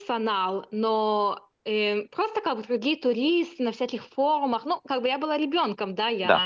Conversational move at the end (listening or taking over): taking over